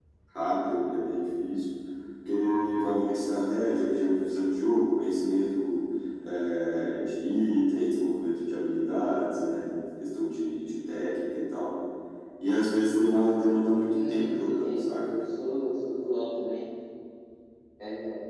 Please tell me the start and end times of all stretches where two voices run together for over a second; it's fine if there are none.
13.9-15.1

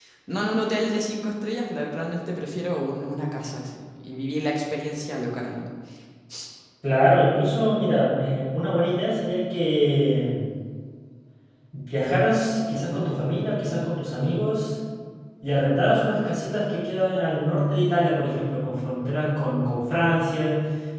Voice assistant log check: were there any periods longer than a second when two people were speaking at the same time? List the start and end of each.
none

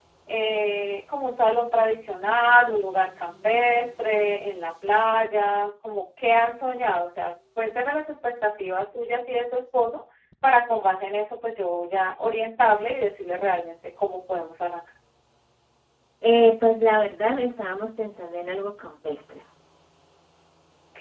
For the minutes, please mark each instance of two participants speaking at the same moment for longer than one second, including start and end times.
none

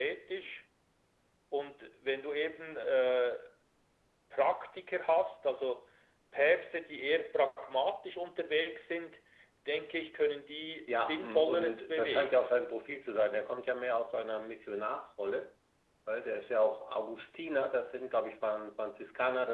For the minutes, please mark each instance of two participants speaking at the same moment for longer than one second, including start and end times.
10.9-12.6

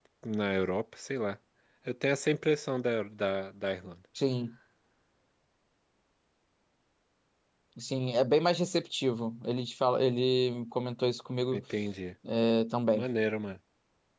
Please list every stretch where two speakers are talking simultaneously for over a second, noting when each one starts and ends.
none

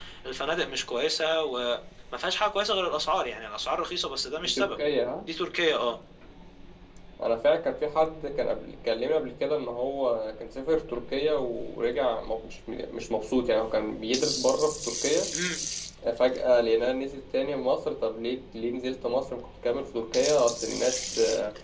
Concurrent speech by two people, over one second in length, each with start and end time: none

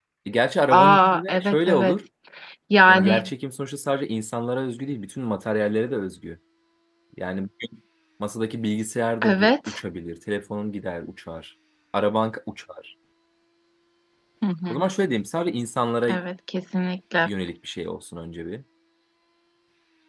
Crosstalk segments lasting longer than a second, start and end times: 0.7-2.0

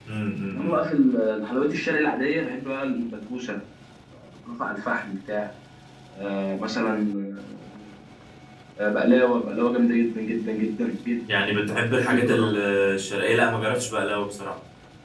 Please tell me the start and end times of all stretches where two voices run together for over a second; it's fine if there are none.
11.4-12.6

